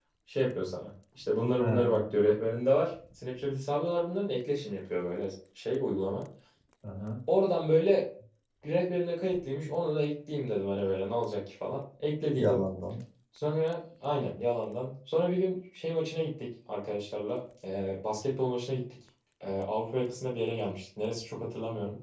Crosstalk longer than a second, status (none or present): none